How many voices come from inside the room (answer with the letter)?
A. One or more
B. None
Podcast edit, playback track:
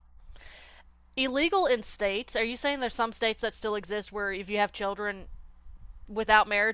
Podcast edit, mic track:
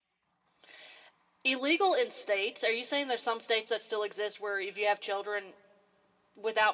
B